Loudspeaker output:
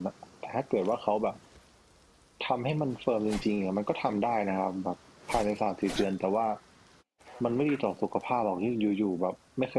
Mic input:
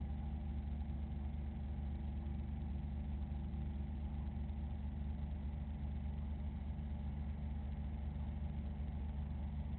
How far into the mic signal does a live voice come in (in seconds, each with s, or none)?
none